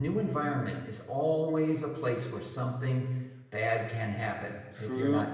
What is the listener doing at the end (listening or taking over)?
taking over